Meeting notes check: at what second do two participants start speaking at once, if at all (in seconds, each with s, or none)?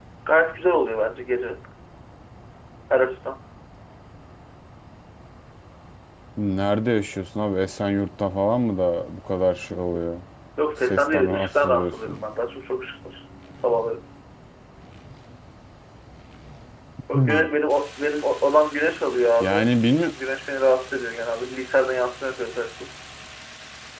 10.8 s